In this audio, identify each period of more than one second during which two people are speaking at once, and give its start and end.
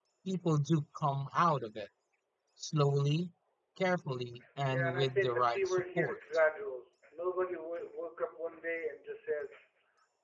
4.7-6.2

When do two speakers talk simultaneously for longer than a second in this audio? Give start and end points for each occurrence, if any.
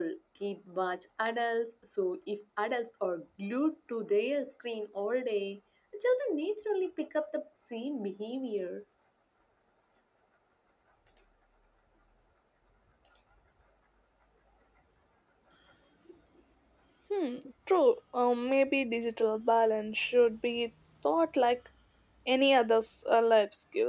none

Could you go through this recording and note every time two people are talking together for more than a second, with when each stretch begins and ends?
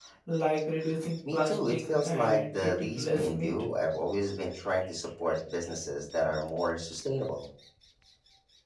1.3-3.5

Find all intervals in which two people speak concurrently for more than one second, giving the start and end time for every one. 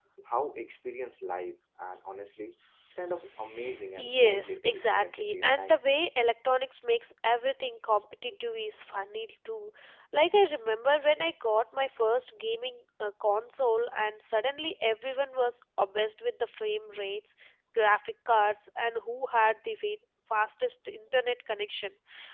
4.0-5.8

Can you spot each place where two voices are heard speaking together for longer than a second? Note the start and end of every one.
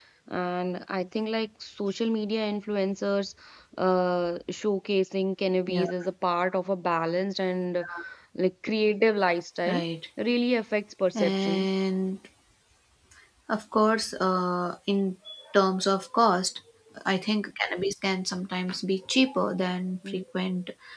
none

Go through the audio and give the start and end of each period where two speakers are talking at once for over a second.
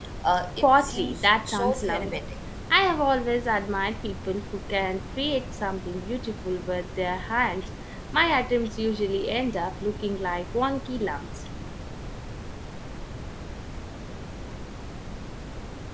0.6-2.1

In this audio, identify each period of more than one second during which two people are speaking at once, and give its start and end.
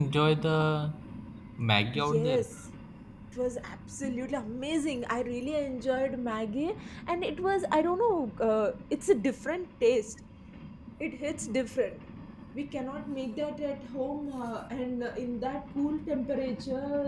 none

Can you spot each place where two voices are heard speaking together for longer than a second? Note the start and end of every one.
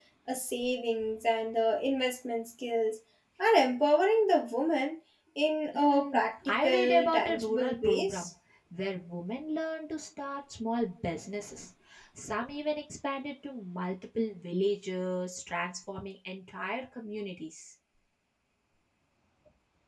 5.7-8.3

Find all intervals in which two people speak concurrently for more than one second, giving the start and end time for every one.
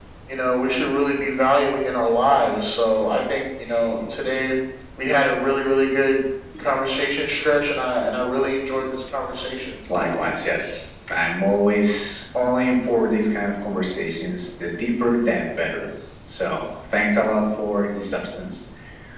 none

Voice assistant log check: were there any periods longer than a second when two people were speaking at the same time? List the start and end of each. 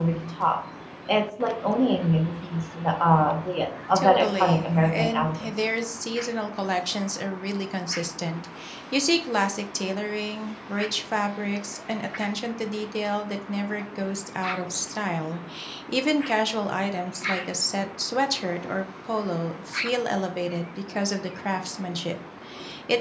4.0-5.5

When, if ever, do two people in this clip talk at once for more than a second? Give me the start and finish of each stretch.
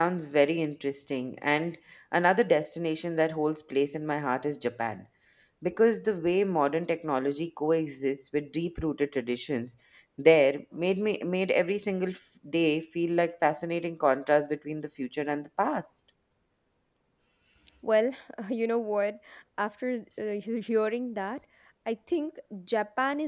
none

